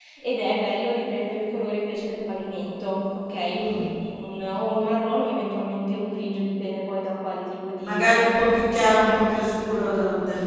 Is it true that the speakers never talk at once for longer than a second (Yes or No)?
Yes